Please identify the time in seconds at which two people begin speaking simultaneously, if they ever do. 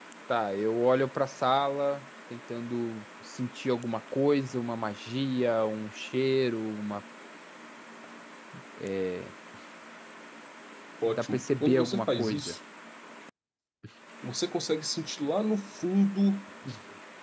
11.0 s

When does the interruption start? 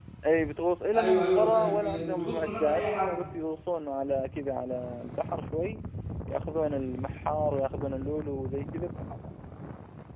0.9 s

